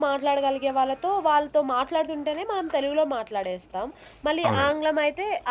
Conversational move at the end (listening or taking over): listening